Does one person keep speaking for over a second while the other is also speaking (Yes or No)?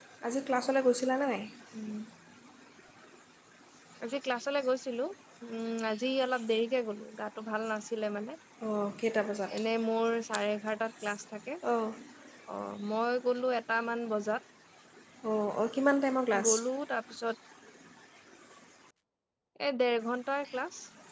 No